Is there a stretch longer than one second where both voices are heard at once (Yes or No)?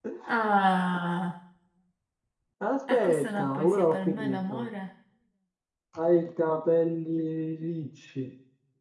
Yes